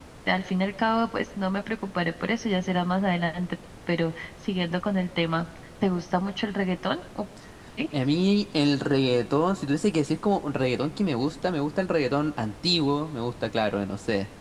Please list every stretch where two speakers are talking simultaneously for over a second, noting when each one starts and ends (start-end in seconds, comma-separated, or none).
none